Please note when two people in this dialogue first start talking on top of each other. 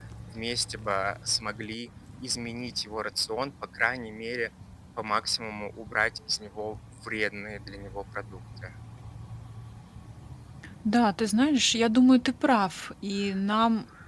none

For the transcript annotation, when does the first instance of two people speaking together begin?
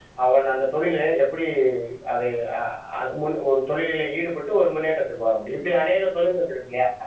none

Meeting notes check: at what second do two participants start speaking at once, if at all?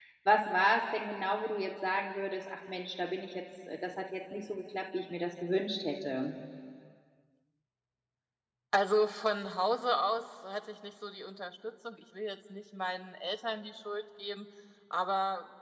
none

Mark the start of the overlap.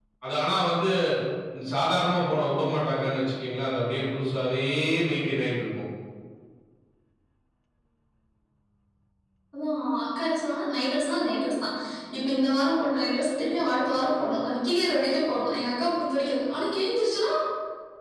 none

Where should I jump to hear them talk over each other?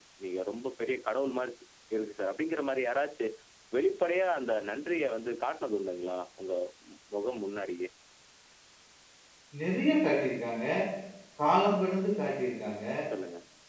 none

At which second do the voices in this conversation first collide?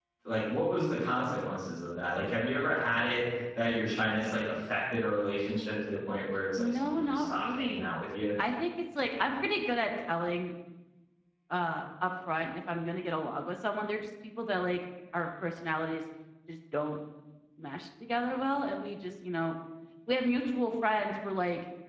6.6 s

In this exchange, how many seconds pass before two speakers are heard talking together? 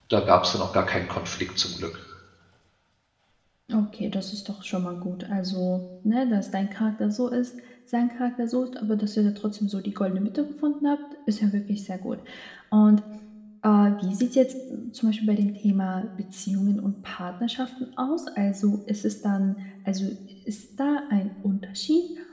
none

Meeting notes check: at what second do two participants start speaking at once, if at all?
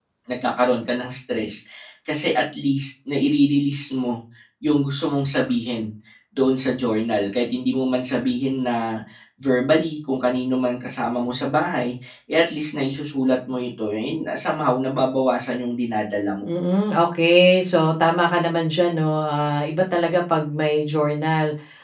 none

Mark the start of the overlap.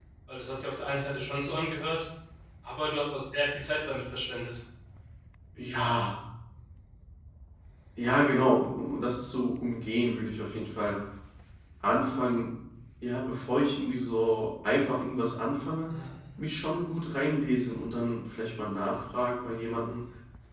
none

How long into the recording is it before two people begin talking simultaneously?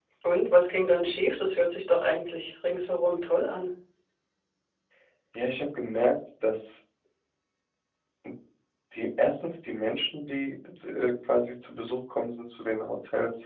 none

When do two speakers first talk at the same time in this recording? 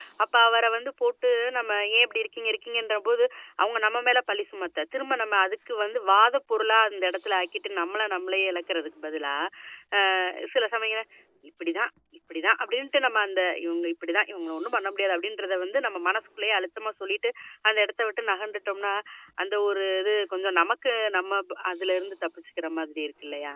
none

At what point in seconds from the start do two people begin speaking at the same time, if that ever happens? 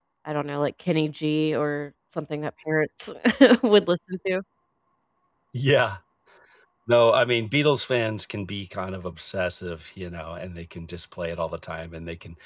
none

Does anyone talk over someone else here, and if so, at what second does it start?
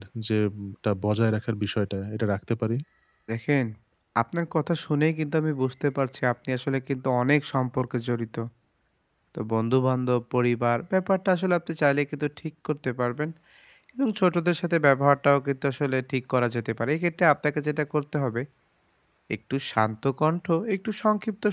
none

